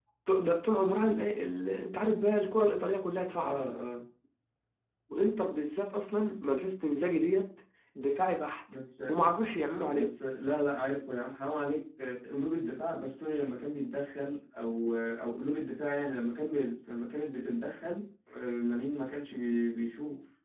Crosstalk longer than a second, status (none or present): none